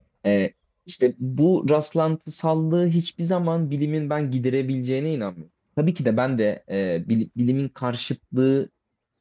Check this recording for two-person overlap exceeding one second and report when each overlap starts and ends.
none

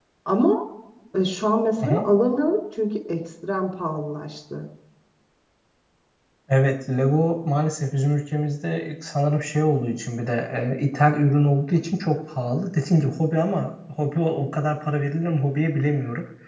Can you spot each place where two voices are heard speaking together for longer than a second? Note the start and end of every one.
none

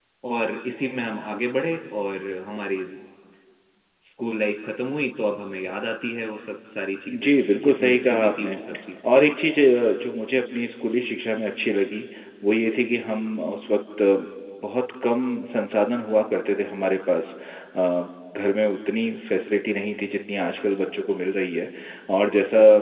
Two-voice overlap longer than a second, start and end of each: 7.1-8.6

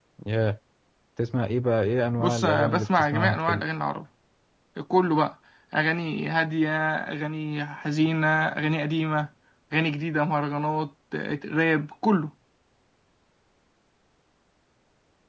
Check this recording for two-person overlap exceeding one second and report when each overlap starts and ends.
2.1-3.6

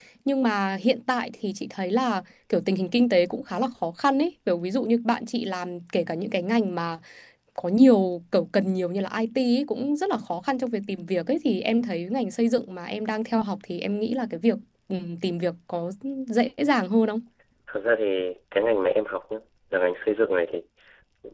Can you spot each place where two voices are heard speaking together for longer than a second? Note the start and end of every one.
none

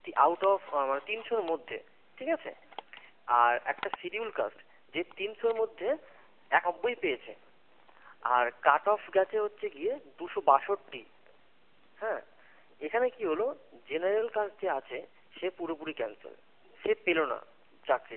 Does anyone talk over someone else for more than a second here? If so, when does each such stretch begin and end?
none

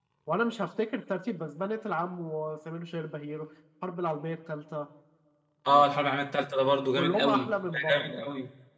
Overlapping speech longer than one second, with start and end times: 7.0-8.3

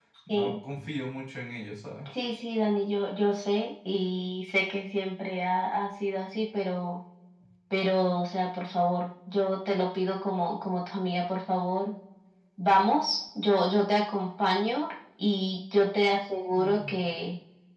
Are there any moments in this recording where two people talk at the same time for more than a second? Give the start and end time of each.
none

